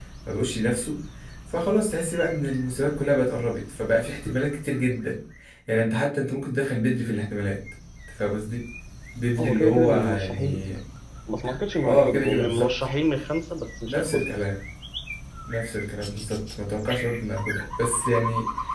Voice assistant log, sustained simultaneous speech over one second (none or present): present